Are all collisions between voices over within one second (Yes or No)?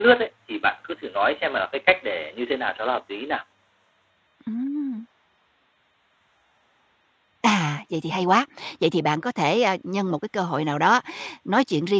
Yes